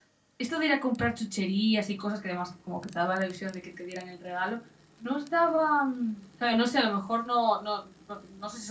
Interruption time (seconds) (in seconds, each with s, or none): none